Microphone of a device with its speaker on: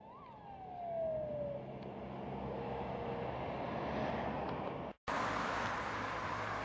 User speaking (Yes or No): No